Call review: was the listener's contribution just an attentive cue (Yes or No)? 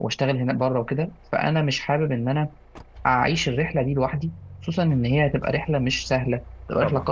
Yes